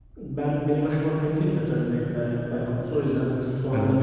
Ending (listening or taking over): taking over